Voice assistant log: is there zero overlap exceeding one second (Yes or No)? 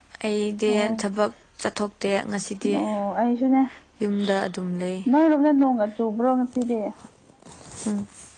Yes